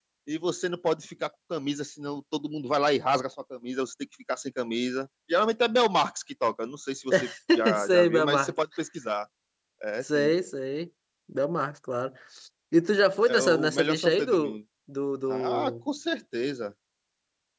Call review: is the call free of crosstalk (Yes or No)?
No